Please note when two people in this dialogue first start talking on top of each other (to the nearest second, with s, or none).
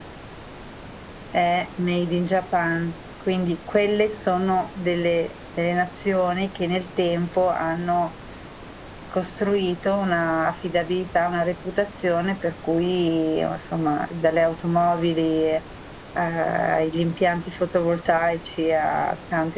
none